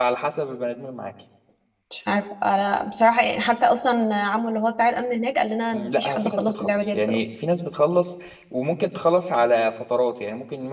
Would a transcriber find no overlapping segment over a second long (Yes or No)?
No